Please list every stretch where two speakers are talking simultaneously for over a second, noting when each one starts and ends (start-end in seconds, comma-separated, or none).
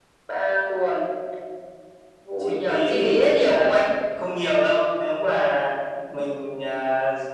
2.4-3.8